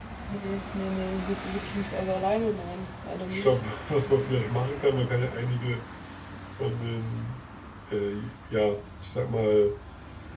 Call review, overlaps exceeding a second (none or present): none